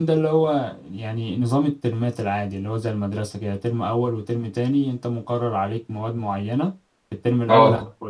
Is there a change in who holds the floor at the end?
No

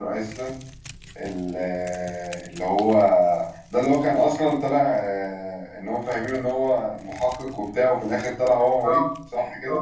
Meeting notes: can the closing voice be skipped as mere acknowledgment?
No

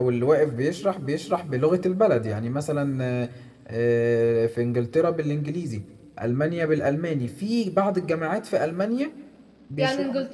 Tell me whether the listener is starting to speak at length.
Yes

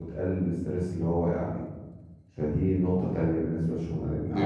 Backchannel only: No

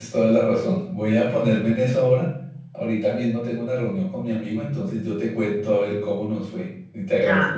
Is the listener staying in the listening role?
Yes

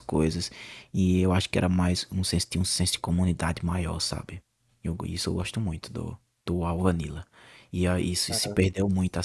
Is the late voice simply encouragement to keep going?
Yes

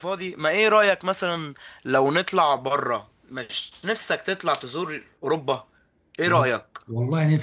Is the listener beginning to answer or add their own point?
Yes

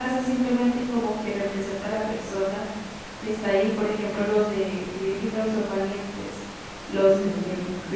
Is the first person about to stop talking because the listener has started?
No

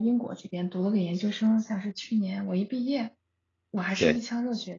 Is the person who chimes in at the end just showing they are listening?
Yes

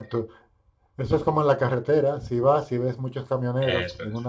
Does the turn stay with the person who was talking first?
Yes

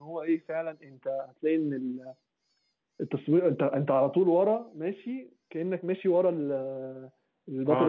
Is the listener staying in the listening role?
No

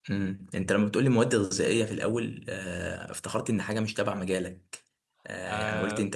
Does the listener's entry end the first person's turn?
No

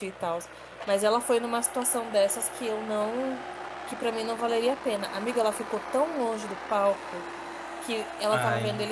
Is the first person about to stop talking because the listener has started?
No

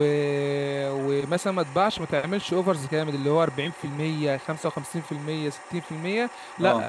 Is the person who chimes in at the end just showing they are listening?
Yes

